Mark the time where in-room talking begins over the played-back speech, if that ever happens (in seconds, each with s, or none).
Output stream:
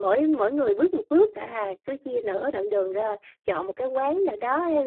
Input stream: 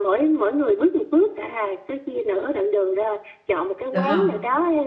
3.9 s